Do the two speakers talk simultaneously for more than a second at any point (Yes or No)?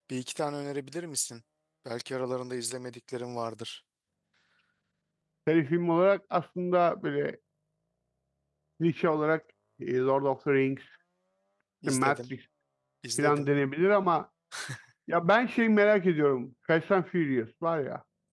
No